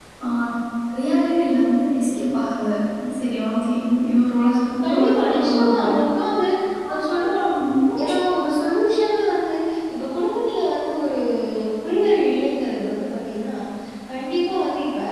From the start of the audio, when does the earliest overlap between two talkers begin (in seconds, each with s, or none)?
4.8 s